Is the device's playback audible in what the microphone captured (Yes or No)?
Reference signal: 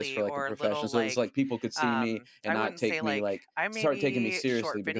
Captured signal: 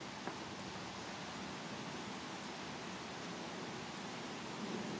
No